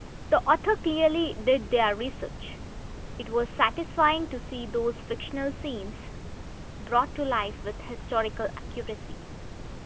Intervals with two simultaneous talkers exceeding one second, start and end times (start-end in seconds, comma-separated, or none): none